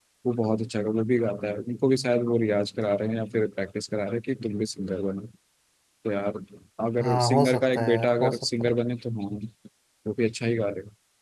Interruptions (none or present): present